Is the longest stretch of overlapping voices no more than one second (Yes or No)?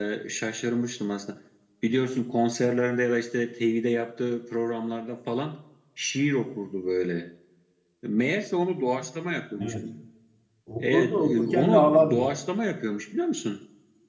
No